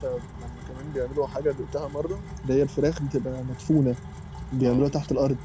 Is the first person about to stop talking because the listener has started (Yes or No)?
Yes